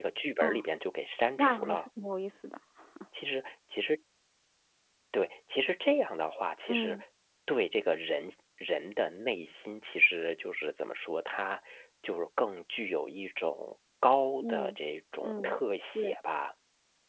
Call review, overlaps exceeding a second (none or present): none